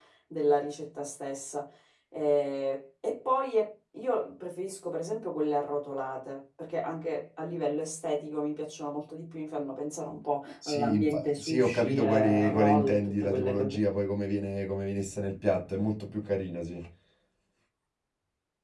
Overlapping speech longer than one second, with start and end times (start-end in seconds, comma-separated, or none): 10.7-13.8